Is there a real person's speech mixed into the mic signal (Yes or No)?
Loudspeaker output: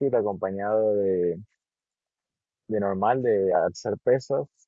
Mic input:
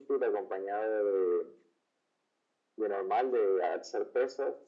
No